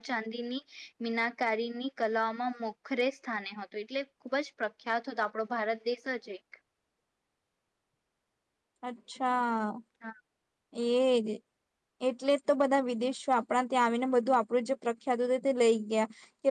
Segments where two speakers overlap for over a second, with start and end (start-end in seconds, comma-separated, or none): none